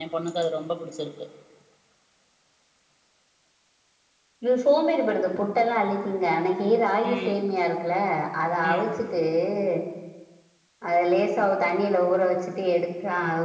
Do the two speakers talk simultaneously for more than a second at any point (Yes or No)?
No